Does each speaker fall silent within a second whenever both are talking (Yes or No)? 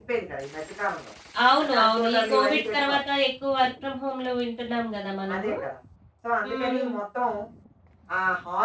No